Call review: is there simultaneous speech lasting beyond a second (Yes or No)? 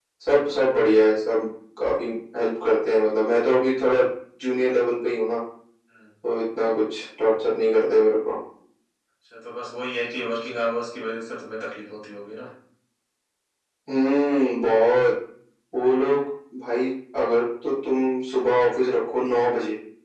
No